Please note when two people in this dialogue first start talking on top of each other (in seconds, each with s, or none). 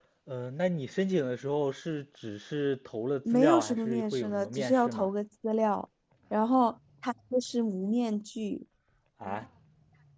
3.2 s